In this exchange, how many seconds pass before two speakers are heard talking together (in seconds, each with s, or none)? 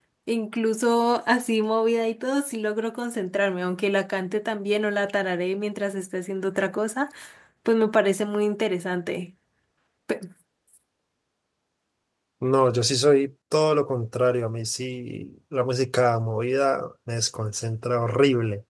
none